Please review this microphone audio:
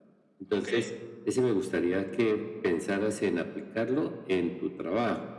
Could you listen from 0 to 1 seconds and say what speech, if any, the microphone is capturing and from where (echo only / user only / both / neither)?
both